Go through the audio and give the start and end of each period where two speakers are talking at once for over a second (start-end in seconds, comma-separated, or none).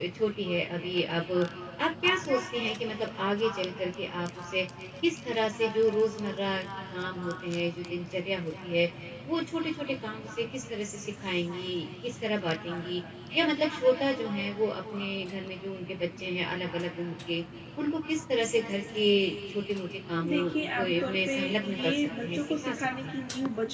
20.3-23.2